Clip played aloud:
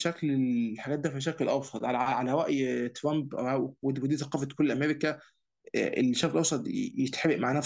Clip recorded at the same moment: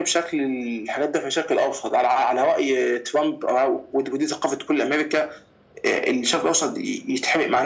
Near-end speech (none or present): none